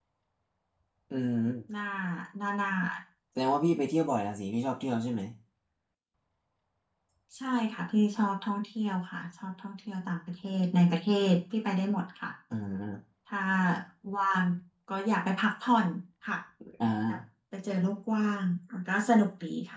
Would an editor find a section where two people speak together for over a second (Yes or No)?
No